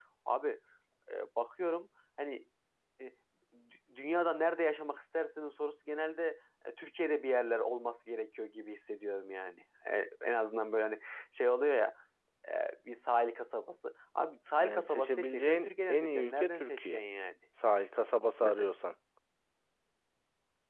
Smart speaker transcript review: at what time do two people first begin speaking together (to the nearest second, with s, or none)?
15 s